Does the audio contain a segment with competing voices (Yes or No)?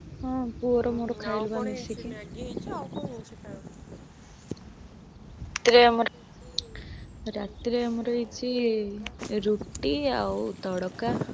Yes